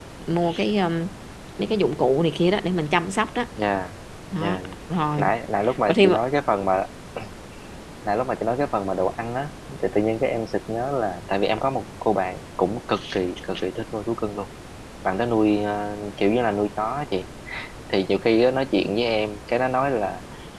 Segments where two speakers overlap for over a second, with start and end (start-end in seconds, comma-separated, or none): none